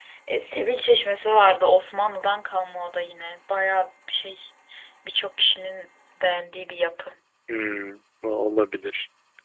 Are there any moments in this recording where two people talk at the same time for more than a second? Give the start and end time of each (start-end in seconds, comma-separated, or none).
none